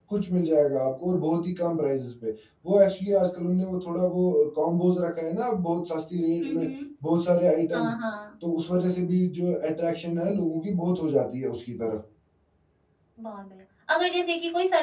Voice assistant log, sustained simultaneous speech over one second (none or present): none